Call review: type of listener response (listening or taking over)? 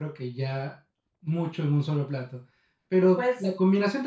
listening